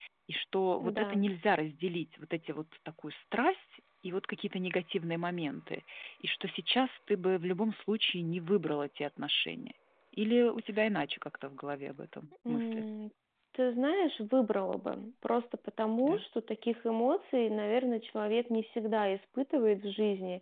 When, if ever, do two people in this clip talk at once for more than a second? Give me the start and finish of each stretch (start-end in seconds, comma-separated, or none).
none